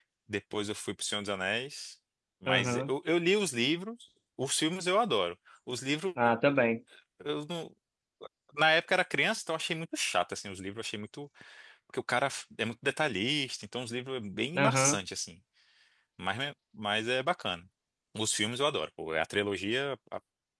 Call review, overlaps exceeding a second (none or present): none